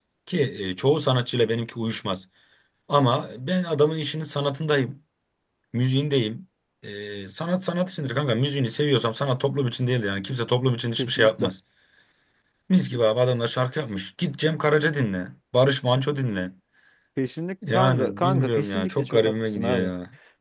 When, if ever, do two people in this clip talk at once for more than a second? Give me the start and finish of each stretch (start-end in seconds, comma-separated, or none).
17.7-19.9